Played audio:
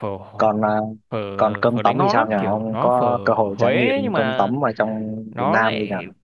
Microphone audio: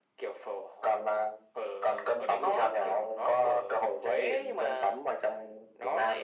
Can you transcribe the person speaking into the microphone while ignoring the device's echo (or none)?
none